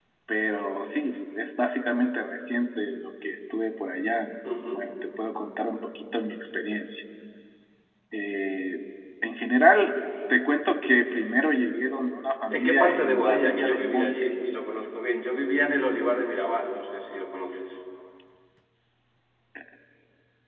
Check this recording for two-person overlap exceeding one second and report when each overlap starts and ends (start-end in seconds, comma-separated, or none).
12.5-14.1